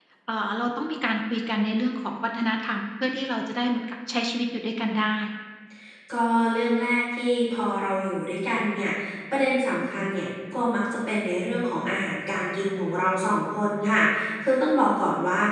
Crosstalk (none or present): none